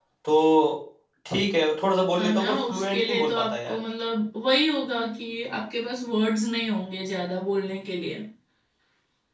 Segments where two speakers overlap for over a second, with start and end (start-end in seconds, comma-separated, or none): 2.1-3.8